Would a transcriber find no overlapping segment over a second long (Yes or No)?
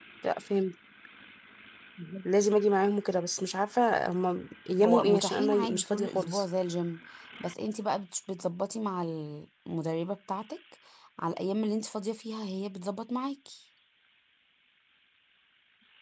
No